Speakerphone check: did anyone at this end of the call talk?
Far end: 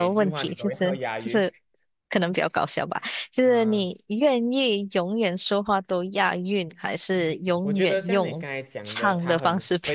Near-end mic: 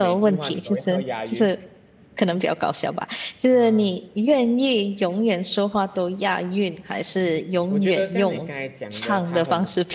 No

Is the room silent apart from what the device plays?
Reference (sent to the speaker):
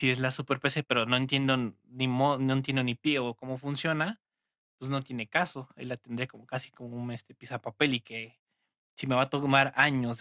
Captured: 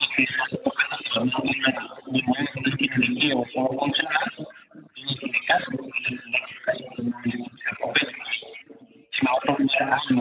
Yes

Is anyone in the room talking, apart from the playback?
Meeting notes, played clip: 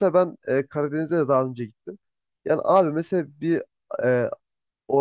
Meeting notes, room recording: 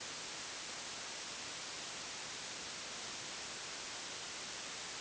No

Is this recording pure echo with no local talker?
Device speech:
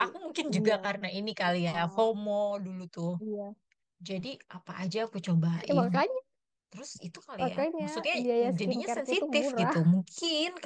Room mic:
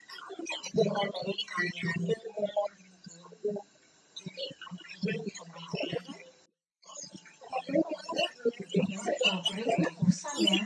No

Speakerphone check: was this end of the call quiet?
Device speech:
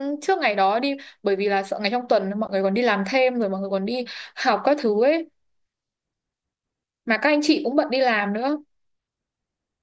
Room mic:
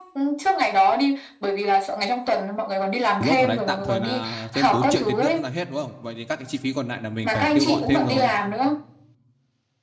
No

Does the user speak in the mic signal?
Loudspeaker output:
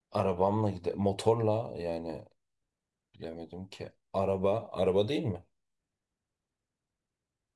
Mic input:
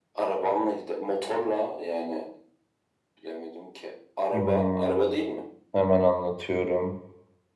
Yes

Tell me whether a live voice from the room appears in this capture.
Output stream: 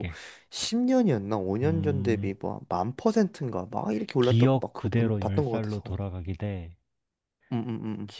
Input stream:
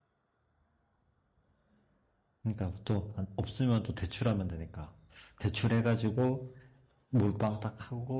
Yes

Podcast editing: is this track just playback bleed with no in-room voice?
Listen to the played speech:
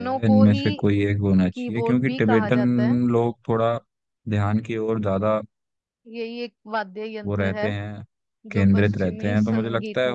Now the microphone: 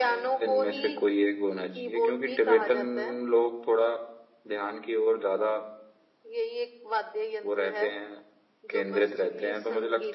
Yes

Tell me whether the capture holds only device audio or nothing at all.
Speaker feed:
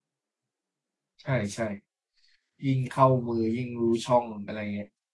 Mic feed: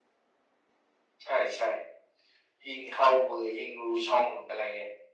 Yes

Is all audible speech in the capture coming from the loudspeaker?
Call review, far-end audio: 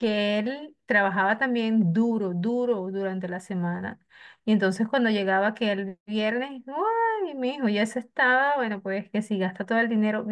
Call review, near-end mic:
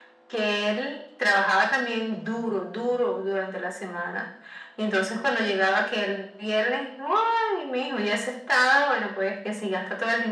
Yes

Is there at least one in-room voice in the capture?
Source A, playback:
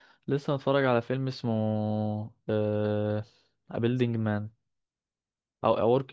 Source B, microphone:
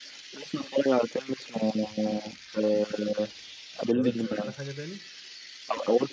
Yes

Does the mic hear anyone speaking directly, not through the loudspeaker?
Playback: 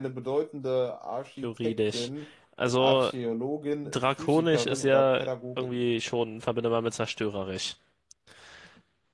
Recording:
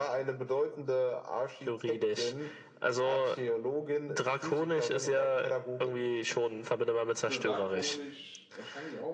Yes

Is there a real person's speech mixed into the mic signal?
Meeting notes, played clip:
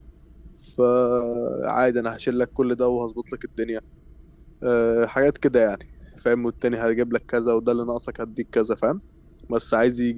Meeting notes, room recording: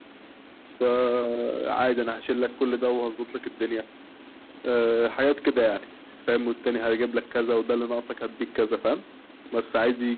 No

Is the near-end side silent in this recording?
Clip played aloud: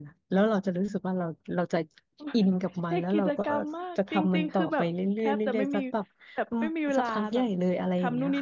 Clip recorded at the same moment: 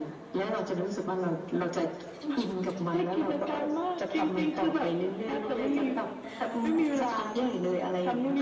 No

